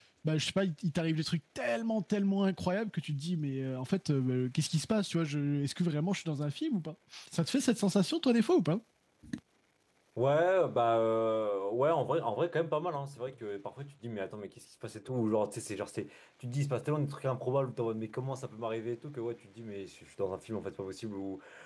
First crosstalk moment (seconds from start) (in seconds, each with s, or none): none